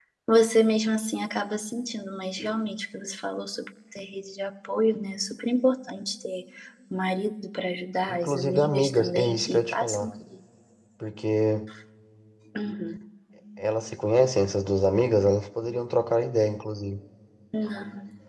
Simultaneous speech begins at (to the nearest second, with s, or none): 8 s